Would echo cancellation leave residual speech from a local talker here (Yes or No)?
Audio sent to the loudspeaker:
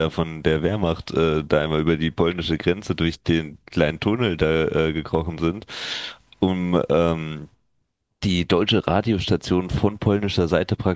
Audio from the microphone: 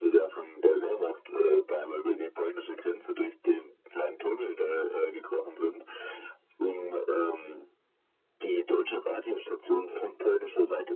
No